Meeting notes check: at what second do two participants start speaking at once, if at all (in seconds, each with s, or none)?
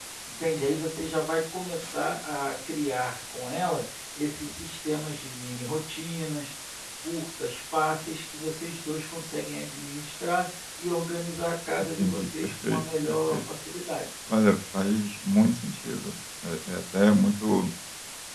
11.8 s